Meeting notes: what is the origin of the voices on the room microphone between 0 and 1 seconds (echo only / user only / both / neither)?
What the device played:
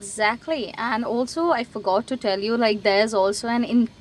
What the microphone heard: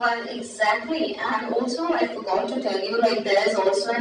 echo only